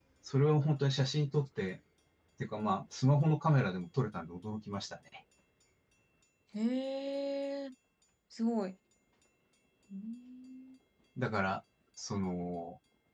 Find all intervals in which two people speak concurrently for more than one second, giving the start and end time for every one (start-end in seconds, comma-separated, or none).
none